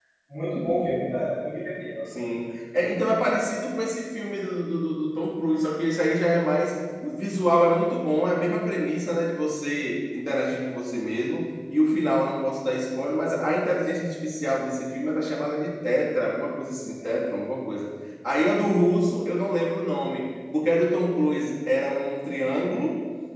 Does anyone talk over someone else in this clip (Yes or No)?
No